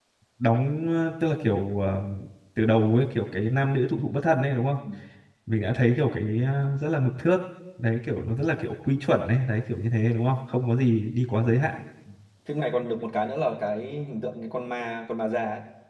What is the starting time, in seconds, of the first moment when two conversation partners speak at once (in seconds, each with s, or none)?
none